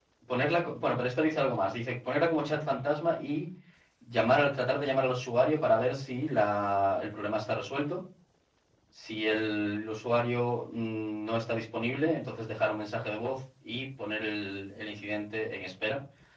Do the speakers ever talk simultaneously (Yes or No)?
No